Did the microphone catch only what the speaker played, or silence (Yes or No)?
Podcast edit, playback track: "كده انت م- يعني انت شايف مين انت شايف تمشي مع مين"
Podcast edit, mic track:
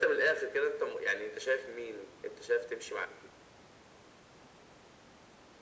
Yes